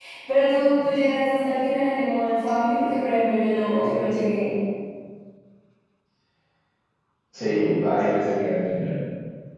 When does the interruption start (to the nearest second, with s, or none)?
none